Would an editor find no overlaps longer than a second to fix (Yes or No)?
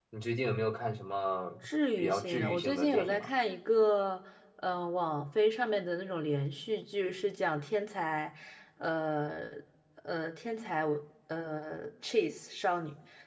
No